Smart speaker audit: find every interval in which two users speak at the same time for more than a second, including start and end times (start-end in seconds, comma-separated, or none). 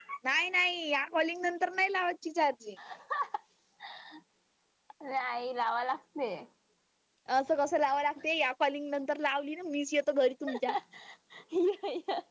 none